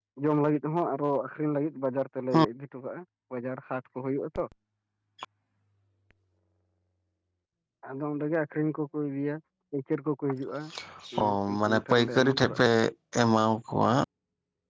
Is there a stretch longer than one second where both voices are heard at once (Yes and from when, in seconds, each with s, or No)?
Yes, from 11.2 s